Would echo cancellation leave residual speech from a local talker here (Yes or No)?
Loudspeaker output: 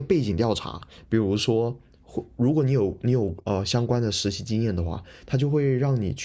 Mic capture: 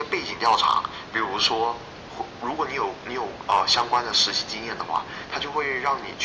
No